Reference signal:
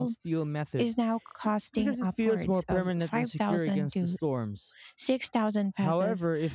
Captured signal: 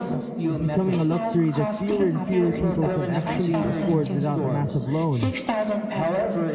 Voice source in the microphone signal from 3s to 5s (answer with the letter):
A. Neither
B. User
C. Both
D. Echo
C